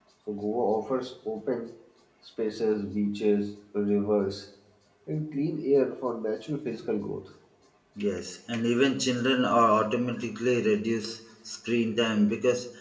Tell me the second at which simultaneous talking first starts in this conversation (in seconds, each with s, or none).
none